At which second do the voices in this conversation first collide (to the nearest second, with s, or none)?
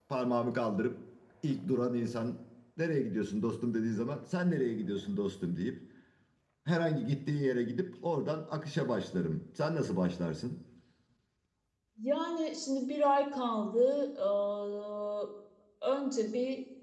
none